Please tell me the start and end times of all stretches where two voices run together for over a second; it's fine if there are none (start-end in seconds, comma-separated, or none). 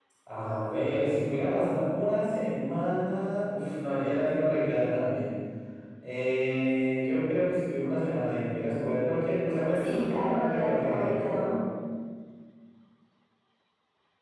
9.8-11.3